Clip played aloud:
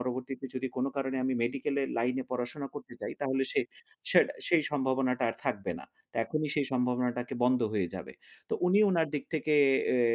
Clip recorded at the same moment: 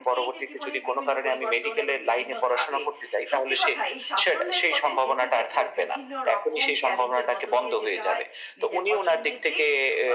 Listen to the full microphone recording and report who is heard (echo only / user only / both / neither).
both